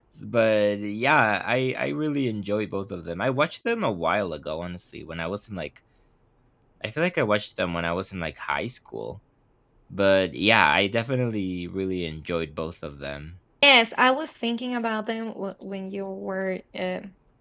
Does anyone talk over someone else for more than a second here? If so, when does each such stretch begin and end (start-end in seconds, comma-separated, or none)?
none